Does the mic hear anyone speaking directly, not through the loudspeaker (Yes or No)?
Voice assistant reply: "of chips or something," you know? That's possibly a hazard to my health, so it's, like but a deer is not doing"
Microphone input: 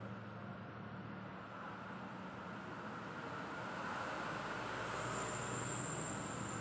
No